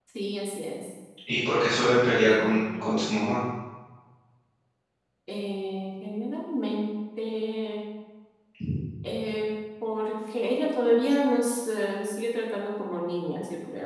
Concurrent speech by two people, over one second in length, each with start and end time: none

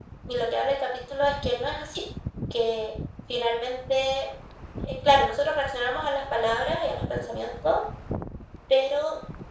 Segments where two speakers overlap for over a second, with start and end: none

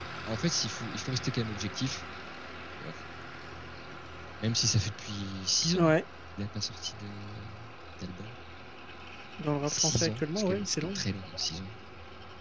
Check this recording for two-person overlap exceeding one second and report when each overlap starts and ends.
9.7-11.0

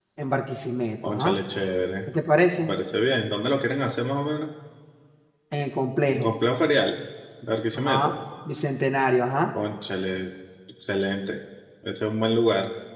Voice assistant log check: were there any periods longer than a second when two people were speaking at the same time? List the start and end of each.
none

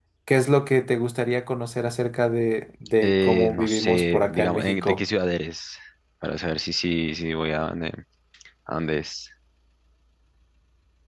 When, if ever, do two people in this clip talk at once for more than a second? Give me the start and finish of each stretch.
3.0-5.0

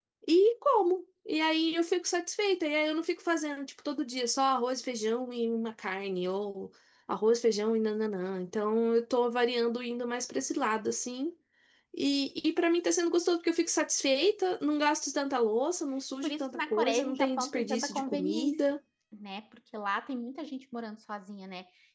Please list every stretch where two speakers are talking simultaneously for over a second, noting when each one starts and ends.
16.2-18.6

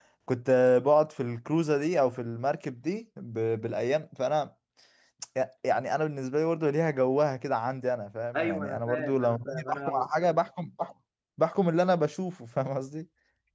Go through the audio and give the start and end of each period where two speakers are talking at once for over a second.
8.3-10.1

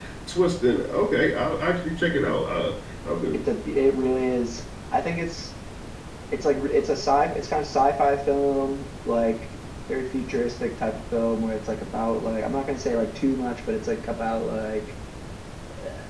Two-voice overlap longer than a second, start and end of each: none

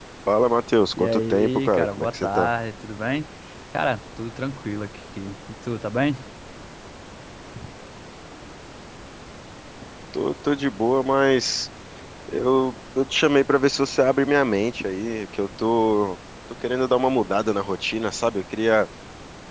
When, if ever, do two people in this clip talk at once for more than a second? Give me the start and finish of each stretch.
0.9-2.5

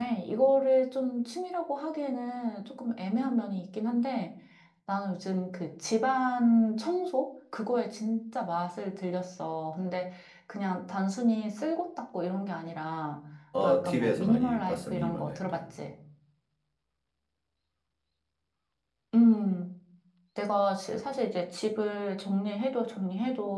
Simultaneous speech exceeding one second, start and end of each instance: 13.6-15.6

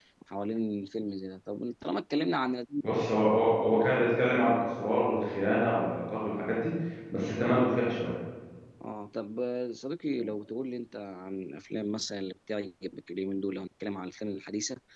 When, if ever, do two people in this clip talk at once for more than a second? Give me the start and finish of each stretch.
none

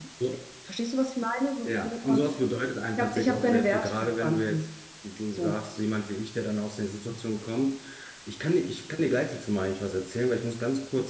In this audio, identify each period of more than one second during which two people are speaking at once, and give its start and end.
3.0-4.7

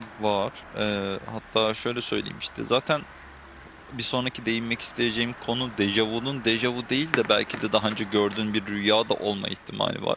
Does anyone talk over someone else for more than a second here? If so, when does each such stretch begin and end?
none

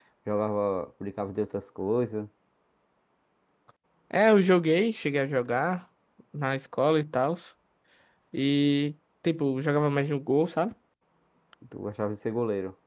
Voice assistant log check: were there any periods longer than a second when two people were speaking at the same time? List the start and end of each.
none

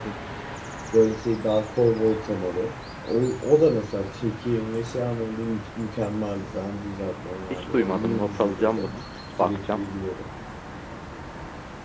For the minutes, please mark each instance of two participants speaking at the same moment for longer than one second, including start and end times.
7.5-8.9

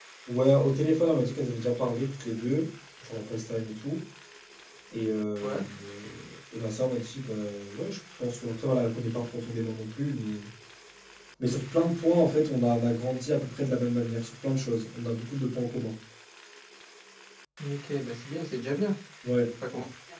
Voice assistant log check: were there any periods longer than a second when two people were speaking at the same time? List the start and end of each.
none

